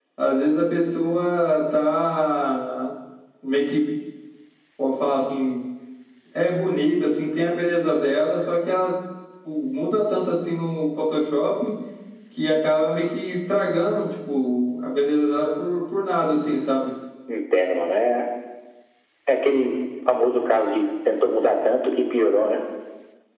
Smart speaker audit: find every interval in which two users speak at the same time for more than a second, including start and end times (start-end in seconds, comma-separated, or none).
none